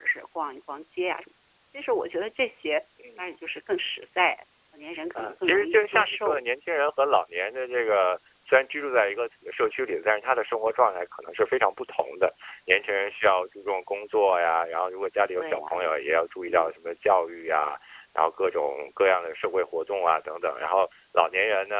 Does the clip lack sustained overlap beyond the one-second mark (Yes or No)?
No